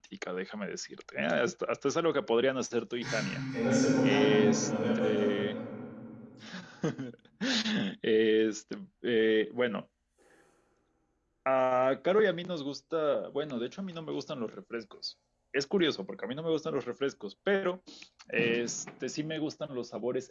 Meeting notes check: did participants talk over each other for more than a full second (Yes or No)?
Yes